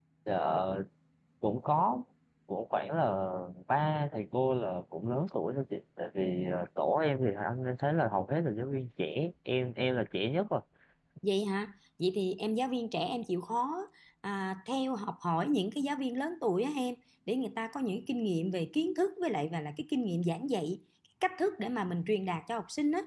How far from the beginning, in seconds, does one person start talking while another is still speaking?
none

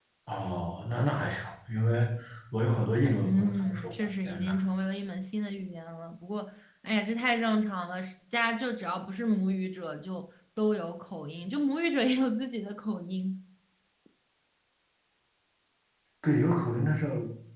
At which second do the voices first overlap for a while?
3.2 s

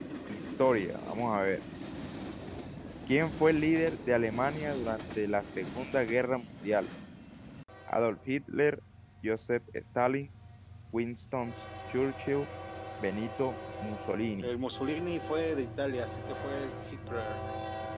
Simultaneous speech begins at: none

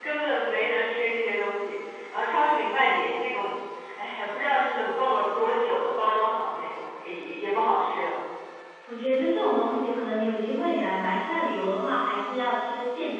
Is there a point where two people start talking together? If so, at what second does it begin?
none

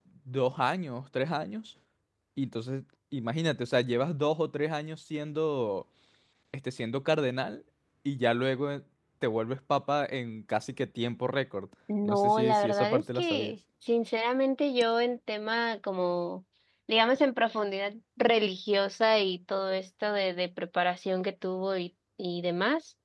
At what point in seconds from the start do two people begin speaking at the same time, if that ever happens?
11.9 s

